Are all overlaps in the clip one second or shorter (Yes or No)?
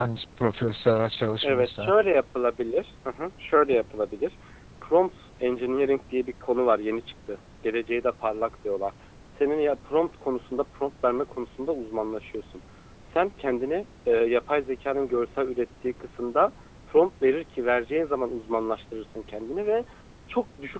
Yes